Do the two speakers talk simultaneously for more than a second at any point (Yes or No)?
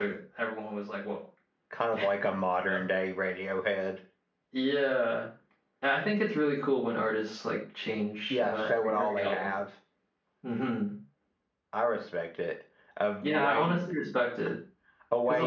Yes